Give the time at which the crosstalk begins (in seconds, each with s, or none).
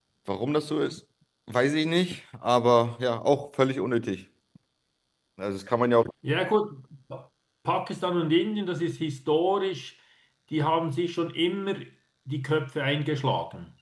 none